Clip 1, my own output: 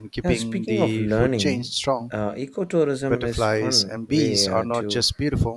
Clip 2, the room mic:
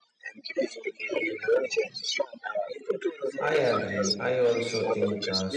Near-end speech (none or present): present